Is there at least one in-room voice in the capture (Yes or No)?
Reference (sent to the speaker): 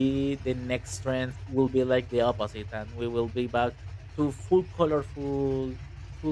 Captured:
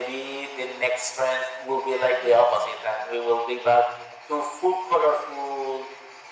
Yes